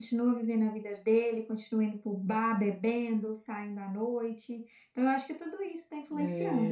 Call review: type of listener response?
taking over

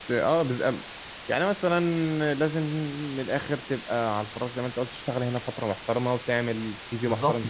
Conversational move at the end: taking over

